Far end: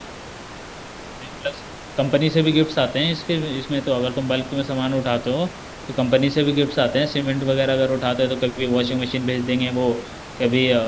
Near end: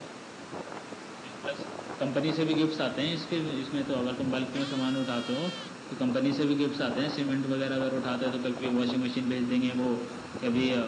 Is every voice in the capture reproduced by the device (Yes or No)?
Yes